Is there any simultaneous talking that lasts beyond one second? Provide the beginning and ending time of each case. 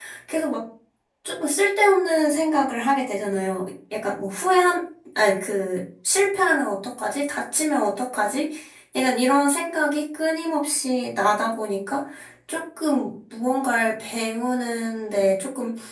none

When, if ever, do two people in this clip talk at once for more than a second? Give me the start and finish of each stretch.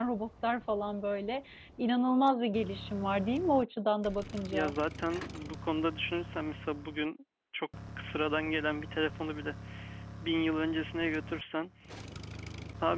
none

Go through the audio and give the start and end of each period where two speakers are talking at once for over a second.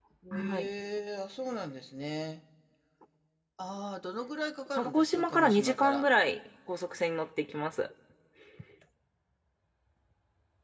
4.8-6.1

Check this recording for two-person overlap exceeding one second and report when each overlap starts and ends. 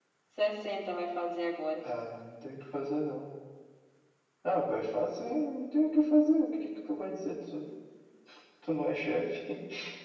none

